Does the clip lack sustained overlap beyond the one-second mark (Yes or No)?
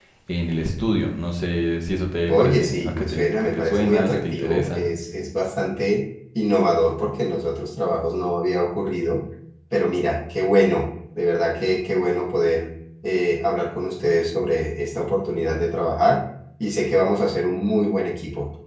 No